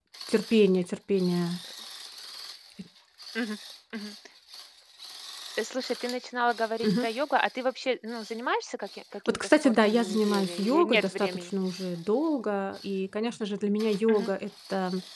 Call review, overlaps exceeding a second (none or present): present